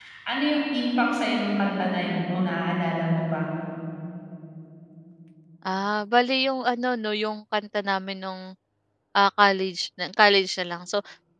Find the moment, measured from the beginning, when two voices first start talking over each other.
none

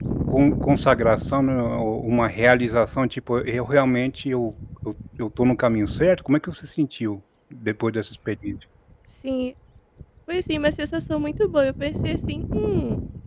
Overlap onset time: none

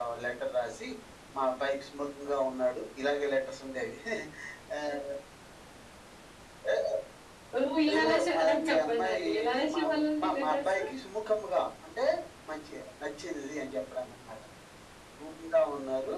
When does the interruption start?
8 s

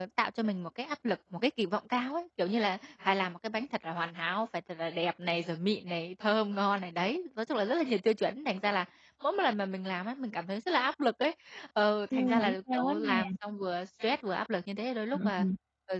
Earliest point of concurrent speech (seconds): 12 s

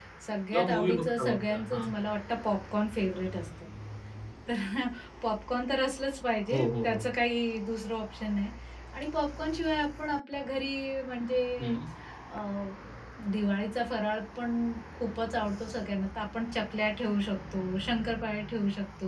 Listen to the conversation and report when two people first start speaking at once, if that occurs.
1 s

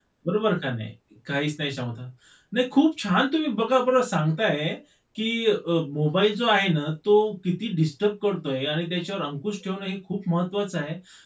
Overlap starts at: none

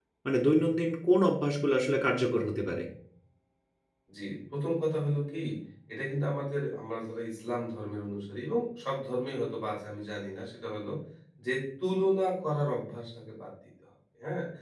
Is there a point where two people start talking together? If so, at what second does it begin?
none

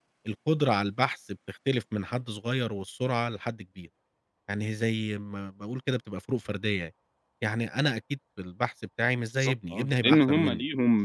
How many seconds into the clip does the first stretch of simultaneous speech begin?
9 s

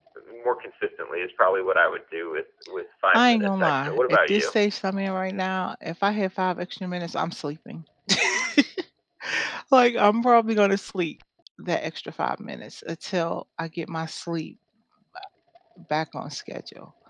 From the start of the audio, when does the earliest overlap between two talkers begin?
3 s

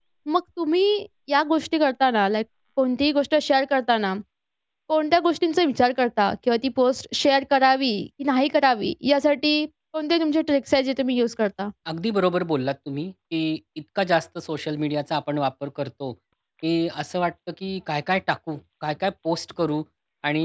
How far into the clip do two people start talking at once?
none

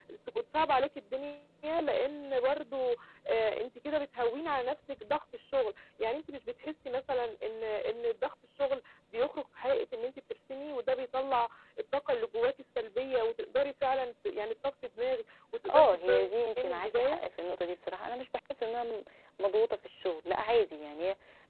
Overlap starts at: 16 s

